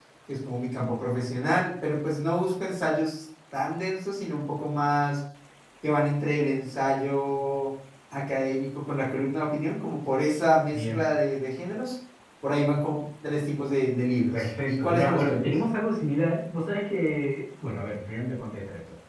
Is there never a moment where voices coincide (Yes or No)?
No